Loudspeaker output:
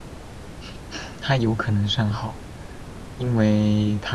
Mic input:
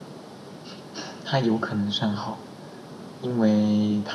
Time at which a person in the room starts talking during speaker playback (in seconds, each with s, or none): none